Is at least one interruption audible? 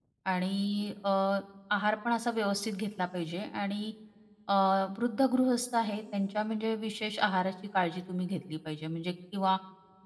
No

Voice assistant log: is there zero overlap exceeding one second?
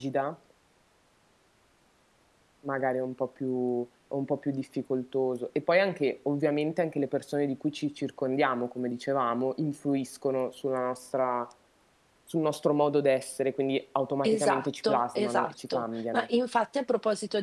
No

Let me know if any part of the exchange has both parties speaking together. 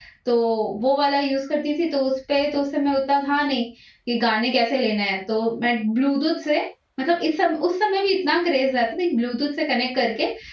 No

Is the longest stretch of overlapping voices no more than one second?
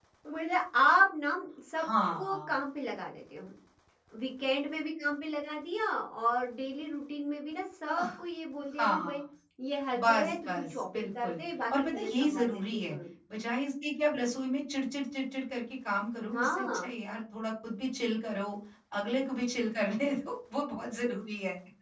No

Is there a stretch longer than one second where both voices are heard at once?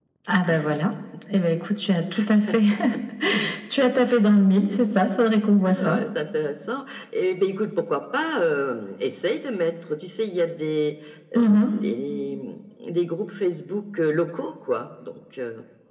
No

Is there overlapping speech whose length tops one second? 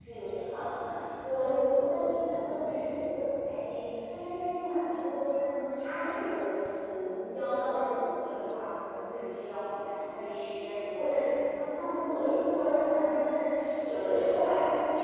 No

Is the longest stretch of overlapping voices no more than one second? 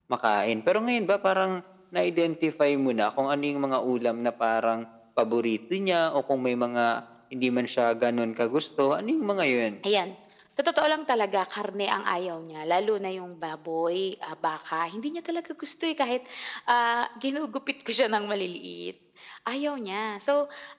Yes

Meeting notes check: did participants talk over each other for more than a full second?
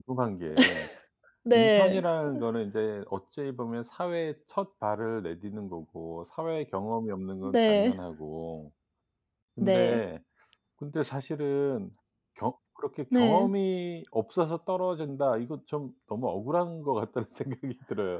No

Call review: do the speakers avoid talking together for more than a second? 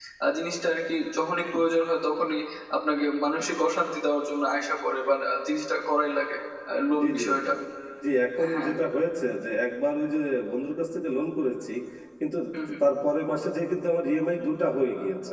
Yes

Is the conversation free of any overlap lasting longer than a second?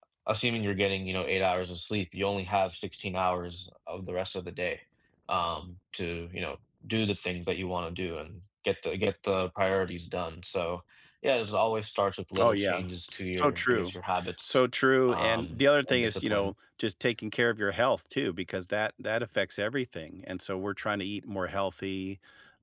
No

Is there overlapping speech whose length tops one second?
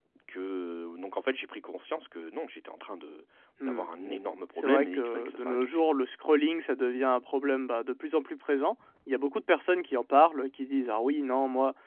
Yes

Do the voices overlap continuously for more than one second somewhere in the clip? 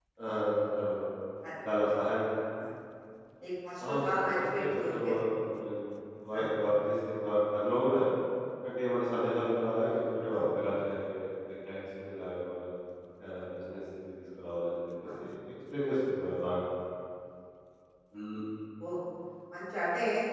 Yes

